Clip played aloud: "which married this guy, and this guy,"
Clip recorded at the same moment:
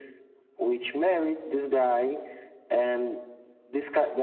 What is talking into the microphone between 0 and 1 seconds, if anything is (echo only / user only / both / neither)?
echo only